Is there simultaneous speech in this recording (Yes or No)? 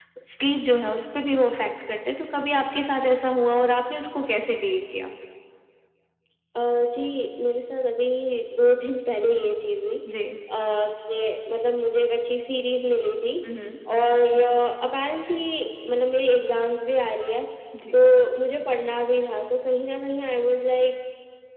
No